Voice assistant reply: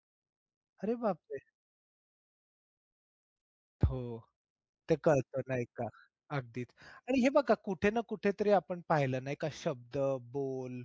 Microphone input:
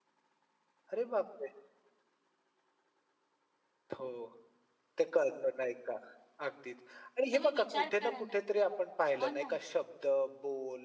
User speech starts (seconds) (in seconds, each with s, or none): 7.3 s